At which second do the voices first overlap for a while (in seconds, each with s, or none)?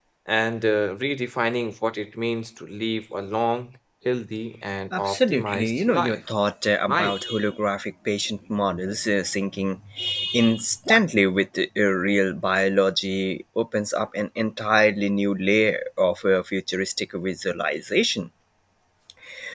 4.9 s